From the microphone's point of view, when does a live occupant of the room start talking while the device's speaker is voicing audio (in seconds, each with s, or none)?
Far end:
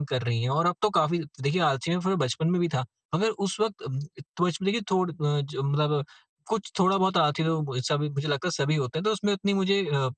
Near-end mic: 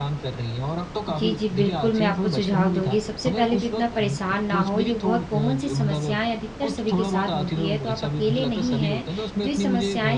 1.1 s